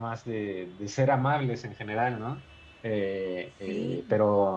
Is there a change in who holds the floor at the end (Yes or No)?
No